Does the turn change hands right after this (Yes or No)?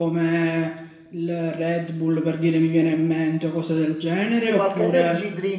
Yes